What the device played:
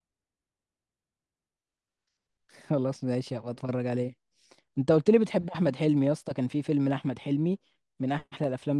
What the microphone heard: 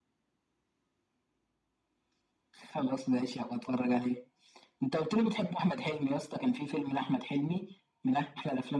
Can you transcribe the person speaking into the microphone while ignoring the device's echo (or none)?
none